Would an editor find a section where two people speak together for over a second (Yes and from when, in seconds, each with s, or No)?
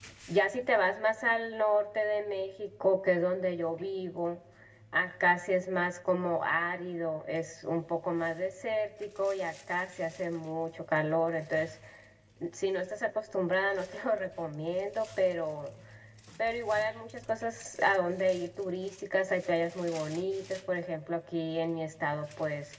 No